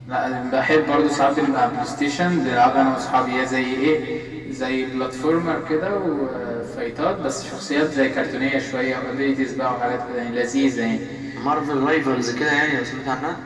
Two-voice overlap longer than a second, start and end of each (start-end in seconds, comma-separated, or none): none